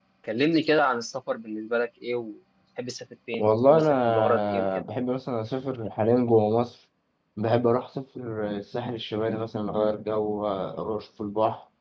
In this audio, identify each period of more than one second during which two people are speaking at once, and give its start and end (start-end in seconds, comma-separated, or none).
3.4-4.7